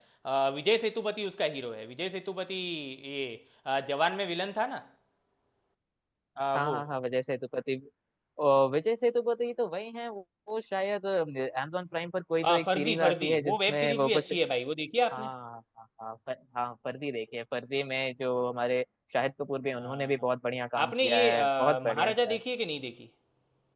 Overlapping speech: Yes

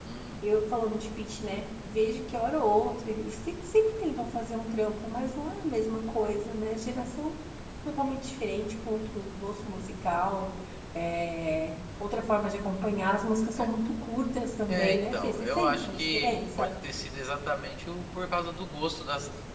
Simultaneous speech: Yes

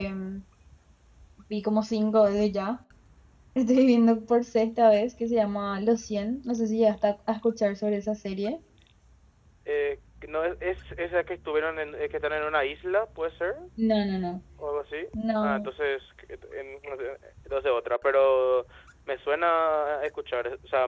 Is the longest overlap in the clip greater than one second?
No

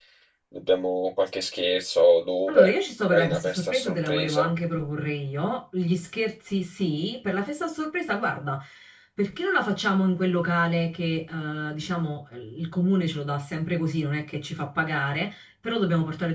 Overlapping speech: Yes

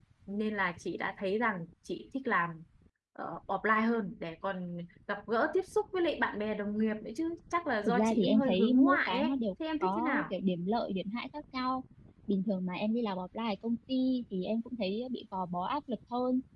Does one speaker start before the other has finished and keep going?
Yes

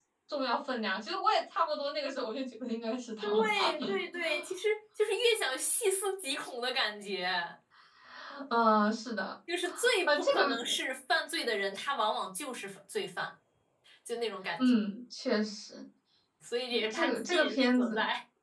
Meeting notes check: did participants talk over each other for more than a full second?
Yes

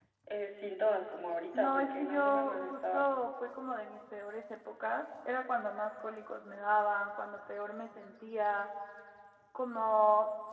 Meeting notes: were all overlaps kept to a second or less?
No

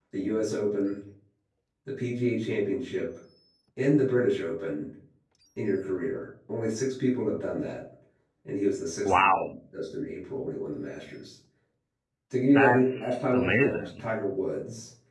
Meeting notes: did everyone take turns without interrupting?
No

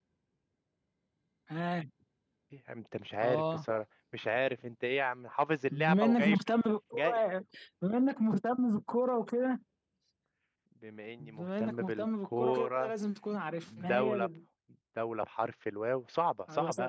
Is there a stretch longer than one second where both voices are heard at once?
Yes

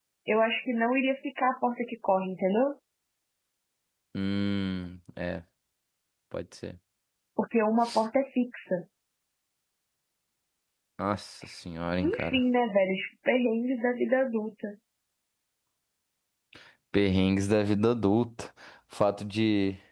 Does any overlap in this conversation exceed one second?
No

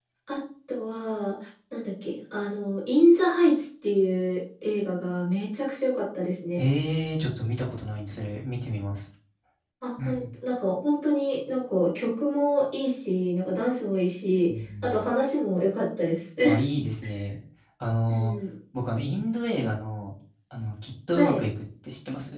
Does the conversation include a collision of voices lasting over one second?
No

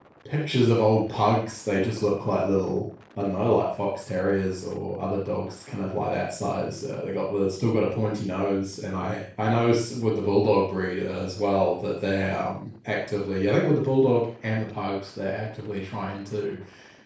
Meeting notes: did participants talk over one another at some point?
No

